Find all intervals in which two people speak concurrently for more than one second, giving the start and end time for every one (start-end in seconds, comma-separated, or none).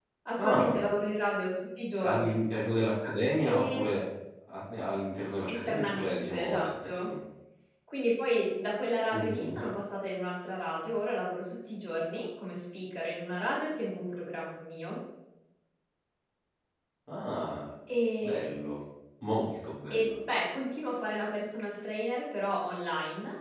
5.5-7.1